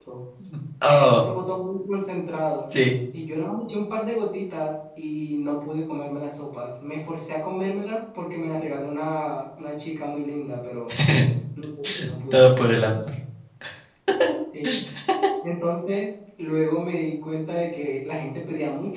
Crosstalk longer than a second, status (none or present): none